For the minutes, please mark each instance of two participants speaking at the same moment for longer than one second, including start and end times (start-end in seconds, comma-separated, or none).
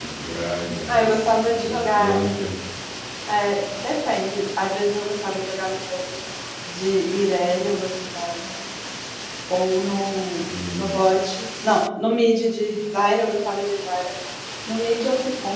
0.9-2.2